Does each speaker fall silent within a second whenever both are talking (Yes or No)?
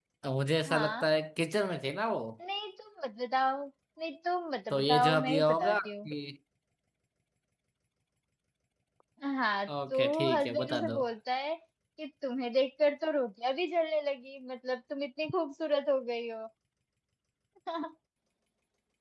No